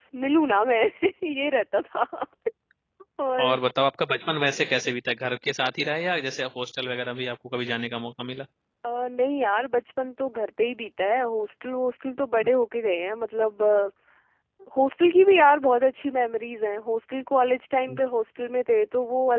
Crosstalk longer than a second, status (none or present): none